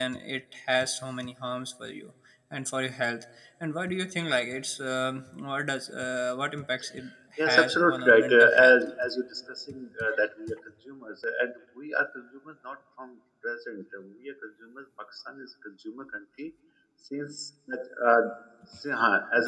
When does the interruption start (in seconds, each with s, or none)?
7.5 s